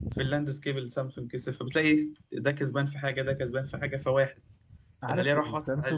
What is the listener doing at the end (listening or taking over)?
taking over